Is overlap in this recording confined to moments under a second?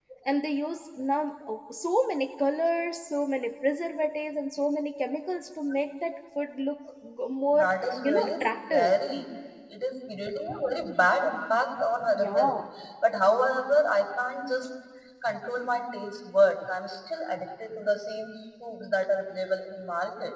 No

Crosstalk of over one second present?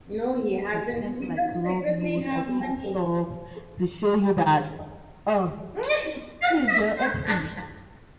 Yes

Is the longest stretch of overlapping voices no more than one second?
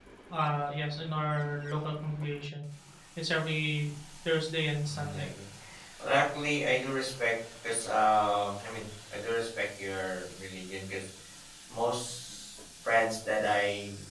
Yes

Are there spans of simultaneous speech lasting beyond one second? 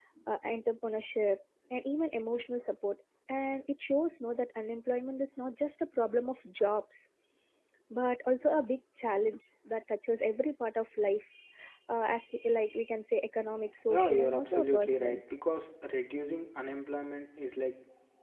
Yes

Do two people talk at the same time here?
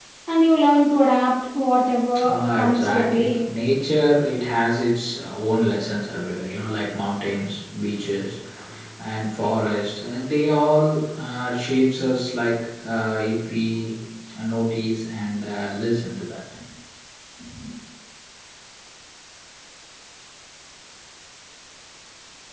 Yes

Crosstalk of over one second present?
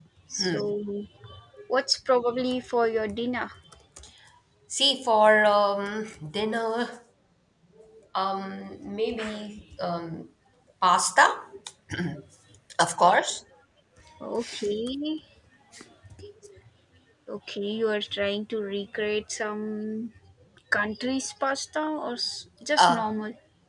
No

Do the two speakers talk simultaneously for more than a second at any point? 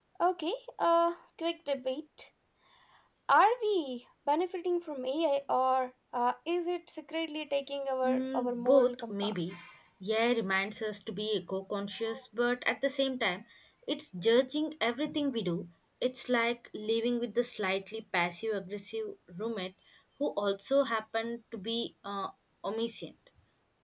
Yes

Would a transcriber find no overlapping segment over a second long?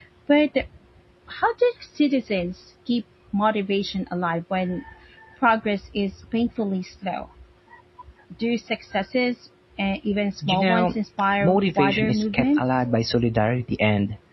No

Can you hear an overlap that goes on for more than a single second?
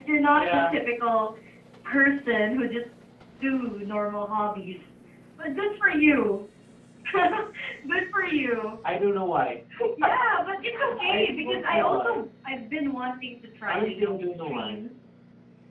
Yes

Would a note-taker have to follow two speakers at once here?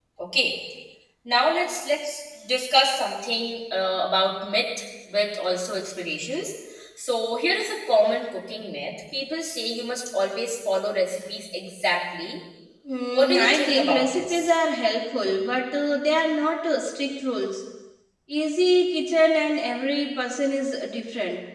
Yes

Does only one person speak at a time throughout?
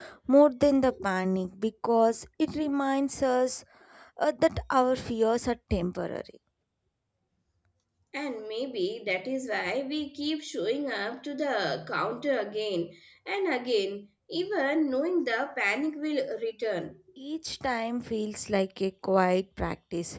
Yes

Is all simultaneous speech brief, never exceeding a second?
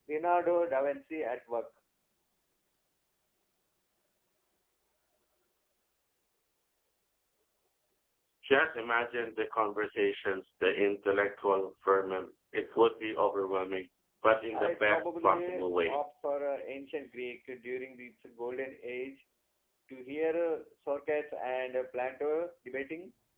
No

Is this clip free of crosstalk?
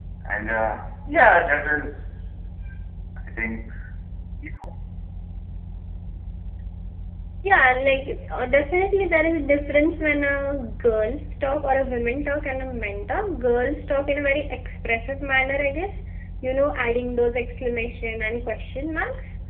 Yes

